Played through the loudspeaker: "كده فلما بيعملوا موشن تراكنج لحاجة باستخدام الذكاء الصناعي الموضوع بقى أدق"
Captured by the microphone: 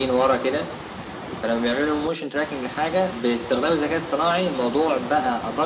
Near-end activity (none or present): none